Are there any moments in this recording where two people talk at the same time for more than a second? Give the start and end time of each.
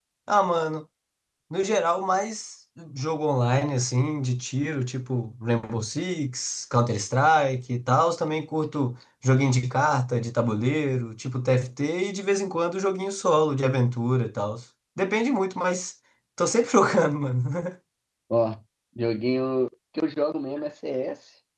none

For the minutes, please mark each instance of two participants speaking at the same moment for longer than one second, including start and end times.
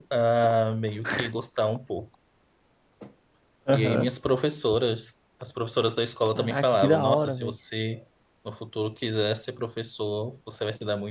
6.3-7.5

